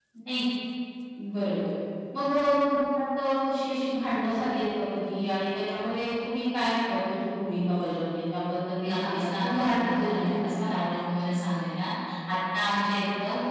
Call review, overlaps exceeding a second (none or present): present